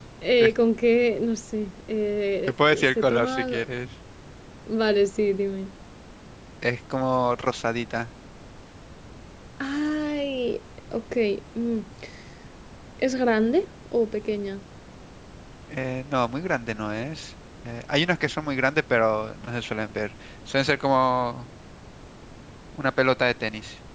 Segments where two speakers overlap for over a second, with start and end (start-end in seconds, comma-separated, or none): 2.5-3.7